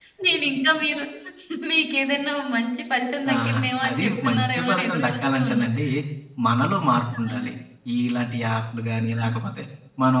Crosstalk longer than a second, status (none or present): present